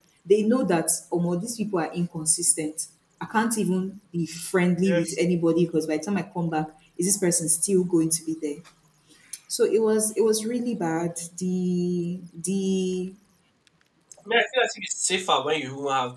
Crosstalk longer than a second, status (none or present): none